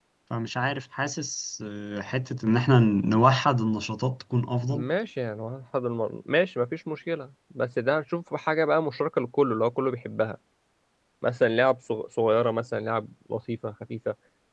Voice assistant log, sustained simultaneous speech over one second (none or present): none